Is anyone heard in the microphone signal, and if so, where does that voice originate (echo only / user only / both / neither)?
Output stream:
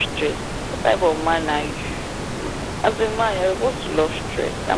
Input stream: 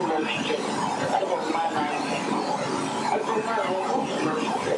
echo only